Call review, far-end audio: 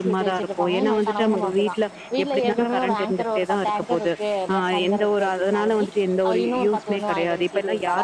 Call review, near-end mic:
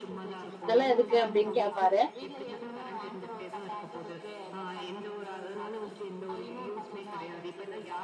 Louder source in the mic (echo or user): user